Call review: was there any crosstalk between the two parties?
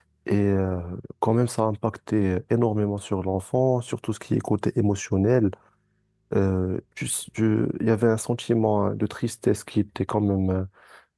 No

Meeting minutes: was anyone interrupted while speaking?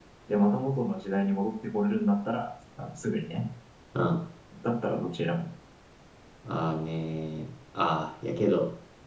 No

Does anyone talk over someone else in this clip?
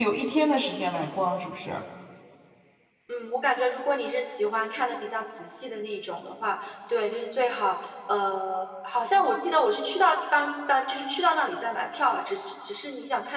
No

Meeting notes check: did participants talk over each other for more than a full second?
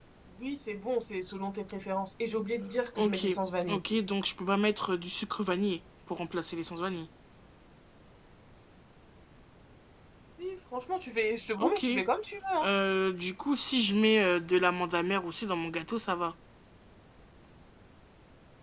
No

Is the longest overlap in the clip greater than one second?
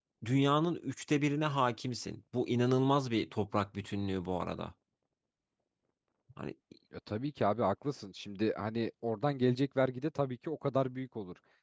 No

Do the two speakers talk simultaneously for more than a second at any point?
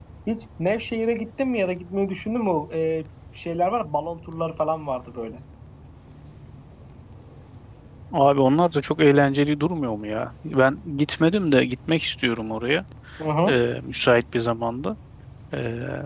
No

